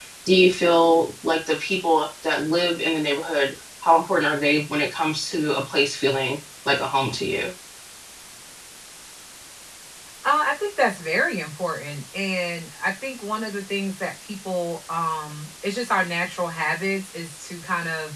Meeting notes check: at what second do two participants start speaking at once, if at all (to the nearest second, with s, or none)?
none